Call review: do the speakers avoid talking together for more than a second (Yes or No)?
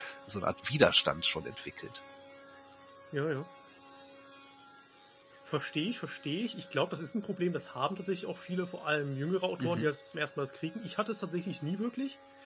Yes